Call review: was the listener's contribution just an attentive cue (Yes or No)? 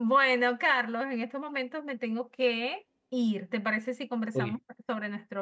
Yes